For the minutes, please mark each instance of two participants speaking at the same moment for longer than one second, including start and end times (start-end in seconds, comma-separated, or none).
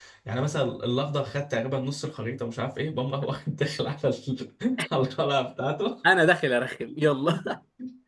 none